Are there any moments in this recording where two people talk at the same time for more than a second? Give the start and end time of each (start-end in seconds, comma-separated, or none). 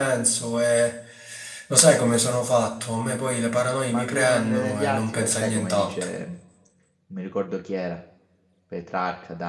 3.9-6.0